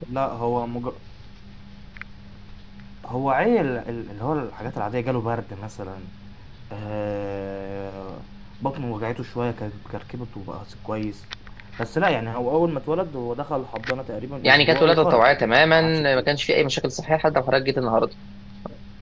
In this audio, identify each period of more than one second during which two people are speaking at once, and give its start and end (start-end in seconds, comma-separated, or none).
14.4-16.3